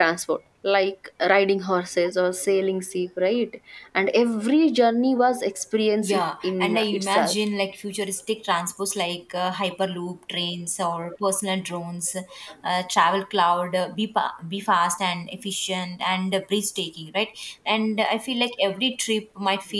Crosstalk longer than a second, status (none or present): present